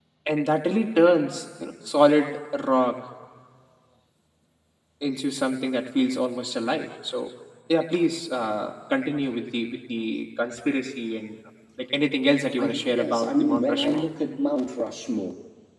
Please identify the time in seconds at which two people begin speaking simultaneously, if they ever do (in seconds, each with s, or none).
12.6 s